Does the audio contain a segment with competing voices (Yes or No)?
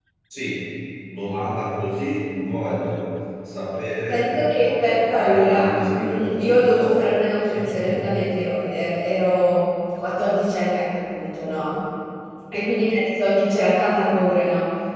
Yes